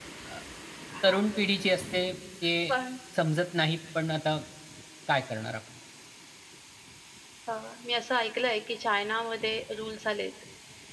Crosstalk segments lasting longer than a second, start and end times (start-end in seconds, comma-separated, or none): none